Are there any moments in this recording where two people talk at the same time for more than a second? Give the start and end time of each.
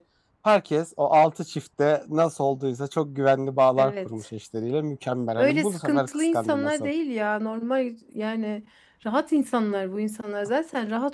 5.4-6.9

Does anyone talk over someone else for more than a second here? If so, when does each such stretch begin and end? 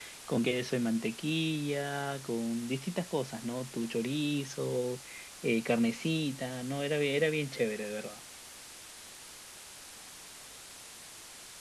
none

